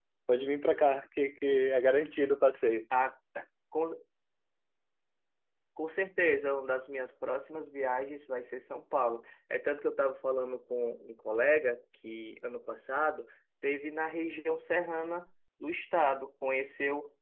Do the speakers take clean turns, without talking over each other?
Yes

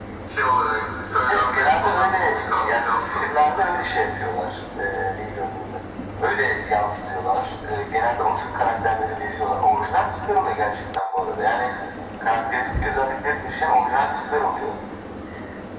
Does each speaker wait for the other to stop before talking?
No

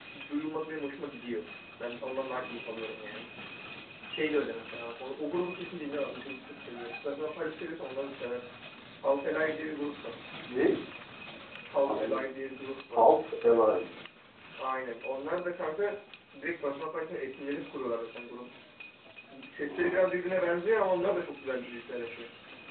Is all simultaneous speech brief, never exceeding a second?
Yes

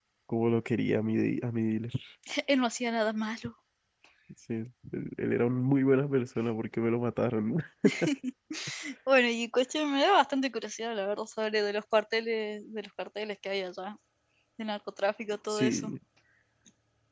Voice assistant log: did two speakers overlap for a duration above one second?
No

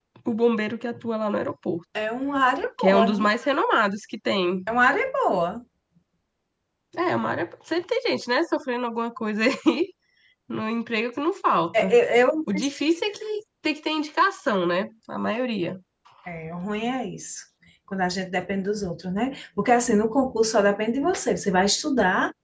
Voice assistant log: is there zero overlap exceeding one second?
Yes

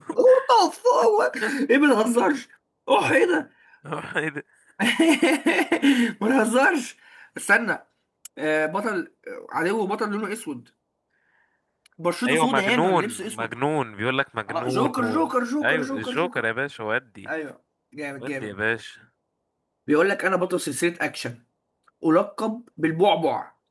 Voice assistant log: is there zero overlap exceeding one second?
No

